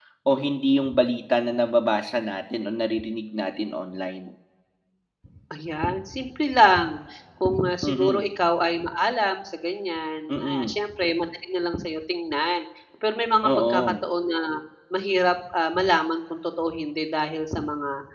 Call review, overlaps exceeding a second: none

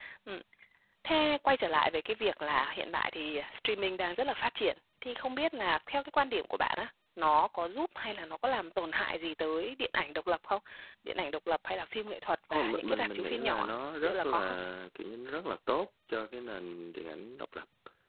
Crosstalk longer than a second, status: present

